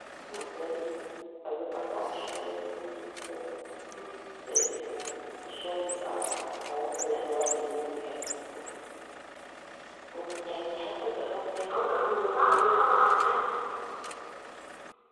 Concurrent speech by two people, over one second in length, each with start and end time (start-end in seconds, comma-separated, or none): none